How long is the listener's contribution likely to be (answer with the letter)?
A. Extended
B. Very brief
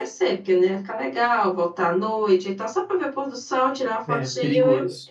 A